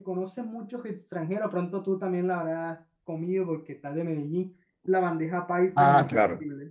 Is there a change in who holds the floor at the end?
Yes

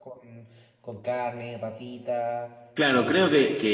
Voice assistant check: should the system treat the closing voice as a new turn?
Yes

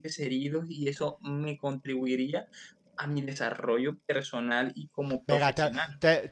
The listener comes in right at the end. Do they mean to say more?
Yes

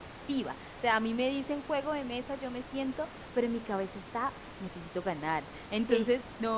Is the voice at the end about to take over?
No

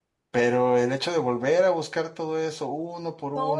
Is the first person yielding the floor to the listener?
Yes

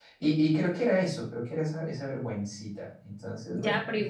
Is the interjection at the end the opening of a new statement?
Yes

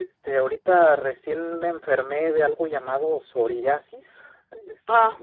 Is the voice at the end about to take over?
Yes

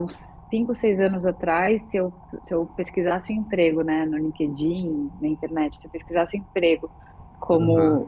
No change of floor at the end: Yes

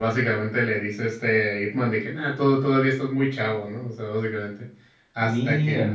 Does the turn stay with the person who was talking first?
Yes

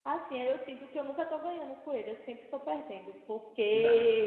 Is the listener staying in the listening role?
Yes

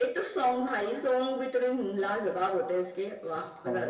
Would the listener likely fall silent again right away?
No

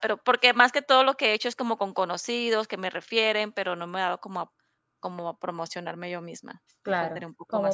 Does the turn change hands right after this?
Yes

